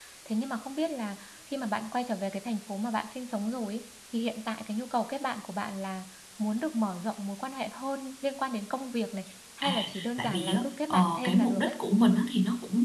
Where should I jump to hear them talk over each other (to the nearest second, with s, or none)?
10 s